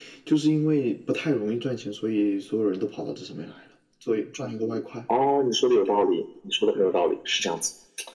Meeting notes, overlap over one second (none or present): none